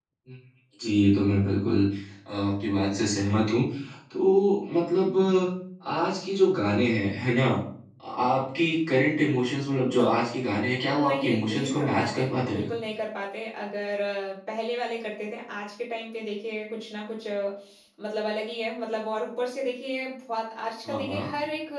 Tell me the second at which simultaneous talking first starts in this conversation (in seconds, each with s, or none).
10.8 s